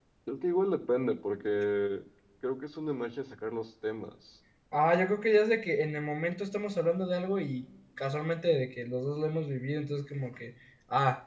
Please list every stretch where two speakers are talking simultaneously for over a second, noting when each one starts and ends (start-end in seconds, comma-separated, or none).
none